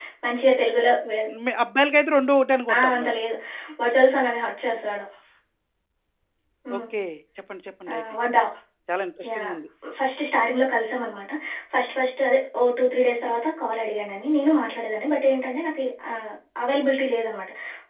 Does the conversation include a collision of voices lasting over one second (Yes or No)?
No